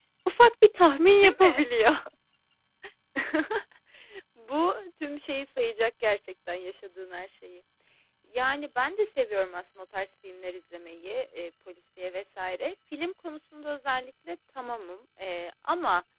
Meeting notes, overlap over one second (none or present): none